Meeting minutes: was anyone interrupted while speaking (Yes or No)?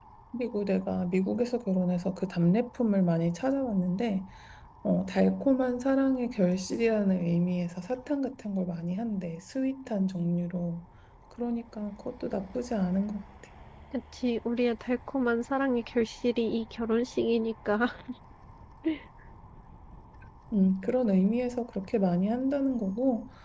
No